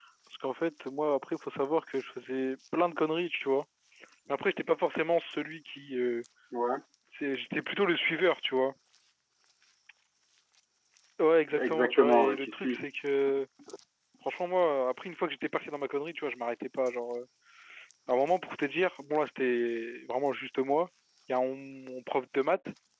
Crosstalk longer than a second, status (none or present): present